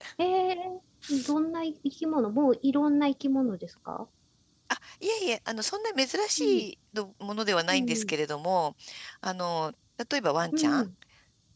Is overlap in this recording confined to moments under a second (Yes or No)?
Yes